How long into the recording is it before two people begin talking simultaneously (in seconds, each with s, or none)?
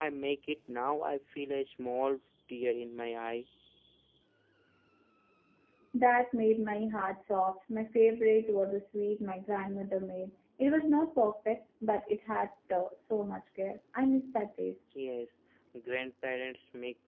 none